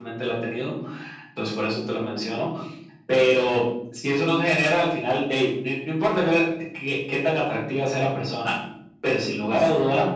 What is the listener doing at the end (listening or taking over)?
listening